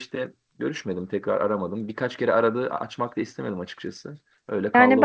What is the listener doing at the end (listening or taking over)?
taking over